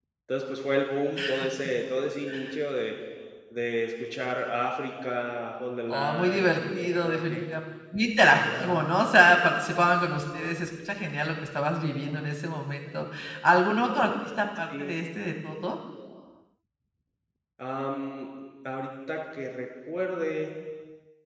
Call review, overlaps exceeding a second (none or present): present